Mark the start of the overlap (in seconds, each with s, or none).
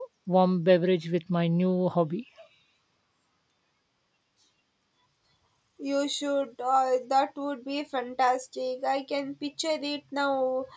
none